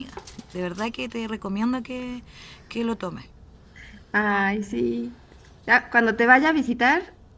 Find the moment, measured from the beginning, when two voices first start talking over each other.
none

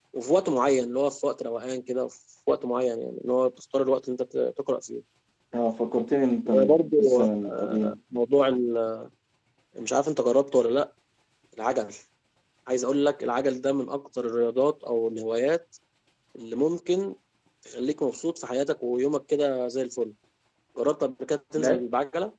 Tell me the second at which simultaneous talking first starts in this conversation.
6 s

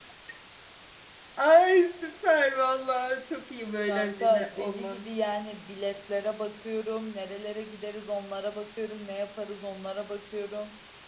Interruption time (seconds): 4 s

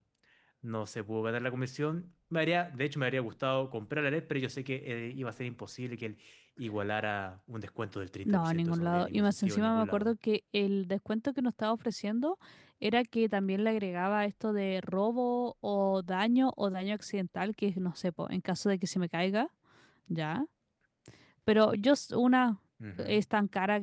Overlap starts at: 8 s

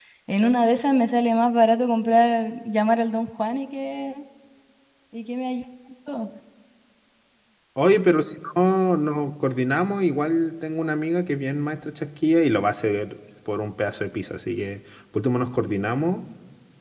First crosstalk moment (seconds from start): none

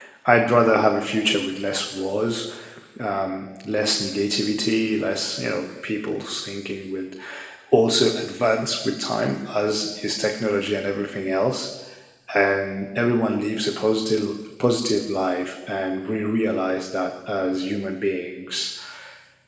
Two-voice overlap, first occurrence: none

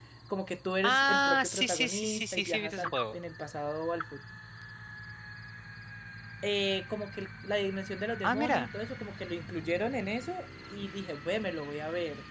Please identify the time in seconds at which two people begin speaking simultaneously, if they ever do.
1 s

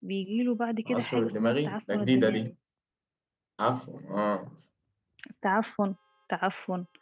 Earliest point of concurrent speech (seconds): 1 s

